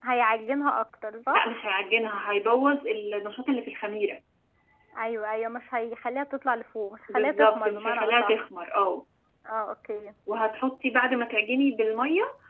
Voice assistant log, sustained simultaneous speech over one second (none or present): present